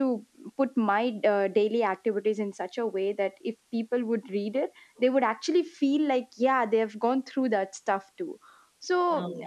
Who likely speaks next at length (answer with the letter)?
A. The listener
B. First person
B